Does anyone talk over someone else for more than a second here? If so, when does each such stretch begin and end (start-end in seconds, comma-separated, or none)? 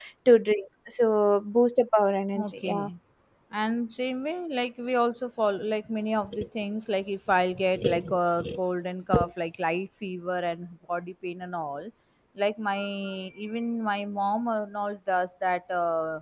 none